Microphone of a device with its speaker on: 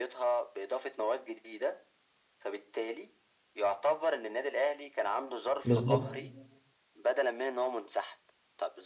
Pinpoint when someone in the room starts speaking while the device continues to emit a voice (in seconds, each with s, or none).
5.7 s